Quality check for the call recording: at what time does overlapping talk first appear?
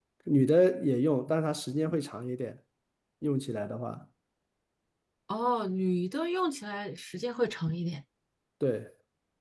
none

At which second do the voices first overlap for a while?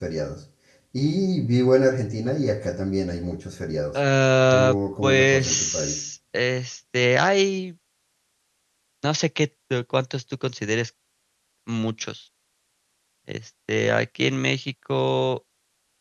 4.5 s

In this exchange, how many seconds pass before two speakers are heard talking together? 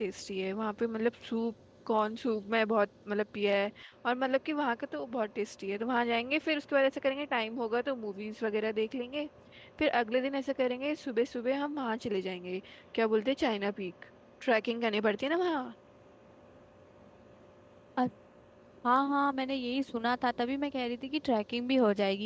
none

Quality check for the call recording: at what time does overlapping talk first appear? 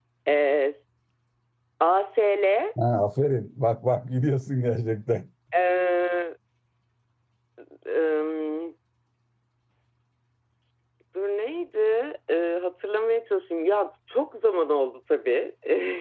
none

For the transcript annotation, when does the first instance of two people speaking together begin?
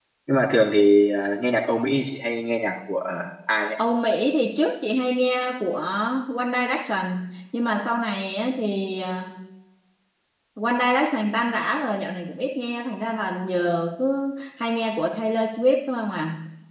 none

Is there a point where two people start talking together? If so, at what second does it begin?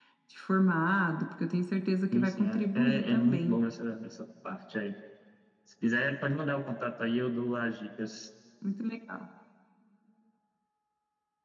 2.1 s

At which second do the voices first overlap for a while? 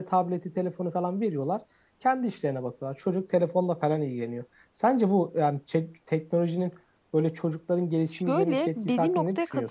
8.1 s

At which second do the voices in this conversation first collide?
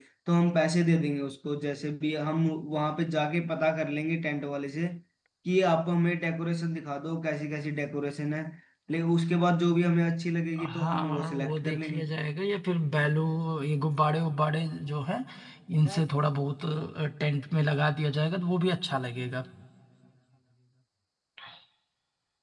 10.6 s

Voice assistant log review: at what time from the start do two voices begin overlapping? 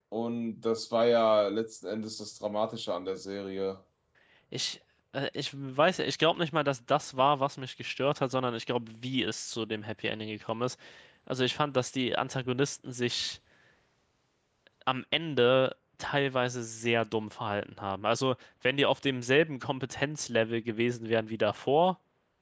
none

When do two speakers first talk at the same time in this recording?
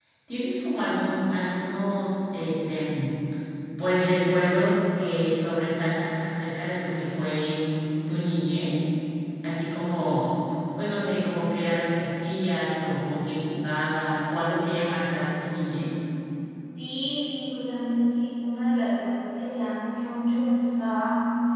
none

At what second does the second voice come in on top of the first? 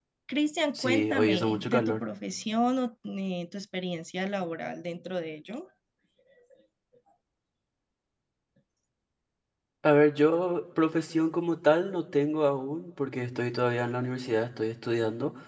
0.8 s

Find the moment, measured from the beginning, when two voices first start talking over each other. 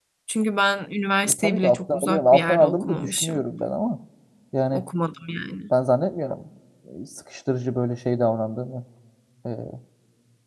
1.4 s

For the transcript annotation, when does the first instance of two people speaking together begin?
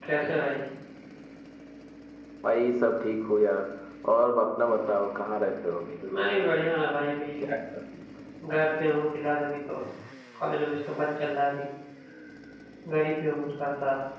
none

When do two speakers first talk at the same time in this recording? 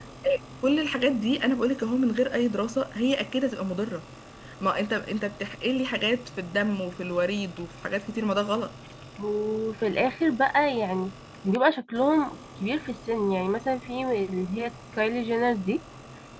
none

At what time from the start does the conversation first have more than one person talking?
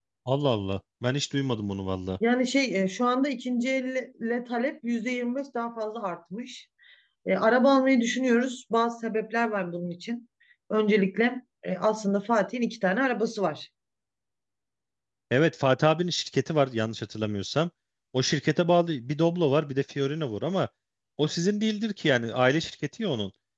none

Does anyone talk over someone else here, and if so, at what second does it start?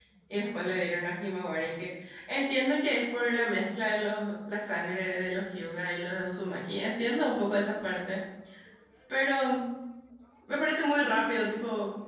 none

